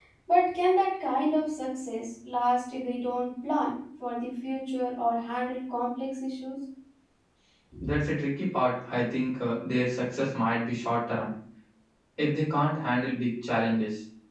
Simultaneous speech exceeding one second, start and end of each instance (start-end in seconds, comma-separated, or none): none